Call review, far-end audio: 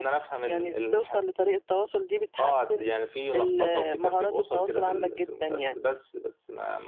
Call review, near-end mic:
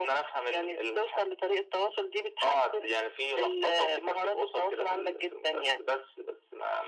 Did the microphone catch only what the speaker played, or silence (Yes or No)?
Yes